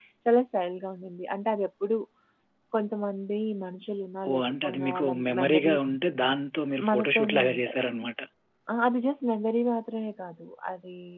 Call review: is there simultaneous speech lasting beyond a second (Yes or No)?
Yes